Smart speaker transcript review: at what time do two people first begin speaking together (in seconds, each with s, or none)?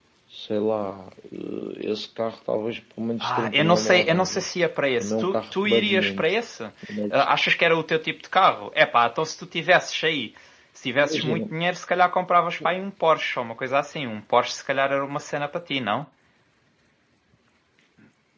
3.2 s